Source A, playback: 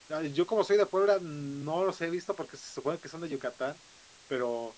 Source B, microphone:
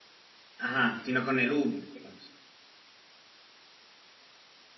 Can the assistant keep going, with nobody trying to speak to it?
No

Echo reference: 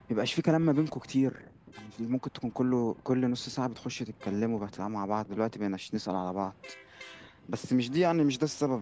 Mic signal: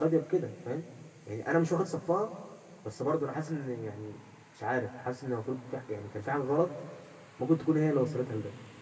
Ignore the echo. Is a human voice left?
Yes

